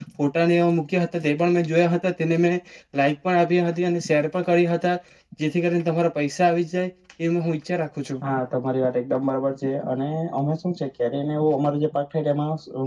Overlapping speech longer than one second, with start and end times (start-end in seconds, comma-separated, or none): none